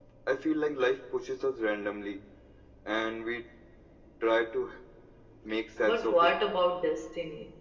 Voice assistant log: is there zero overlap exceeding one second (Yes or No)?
Yes